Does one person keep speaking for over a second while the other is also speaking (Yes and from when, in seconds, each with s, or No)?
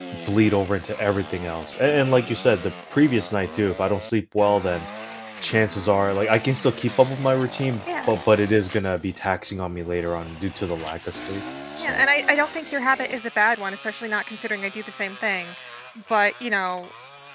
No